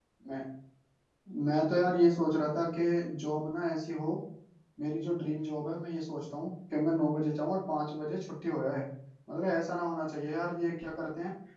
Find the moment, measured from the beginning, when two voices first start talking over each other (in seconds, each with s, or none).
none